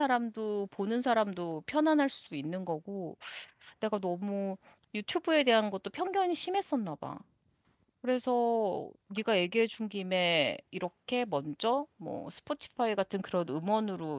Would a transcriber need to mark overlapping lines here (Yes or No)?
No